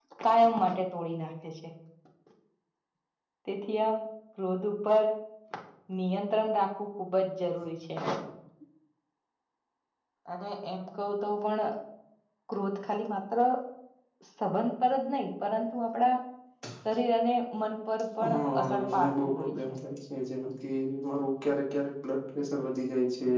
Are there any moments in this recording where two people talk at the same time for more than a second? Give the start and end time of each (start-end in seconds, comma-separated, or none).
18.3-19.7